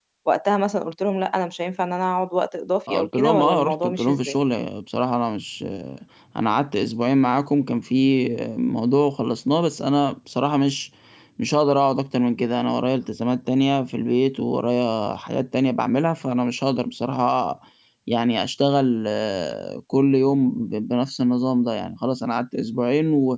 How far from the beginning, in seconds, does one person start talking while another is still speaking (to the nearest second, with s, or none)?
3 s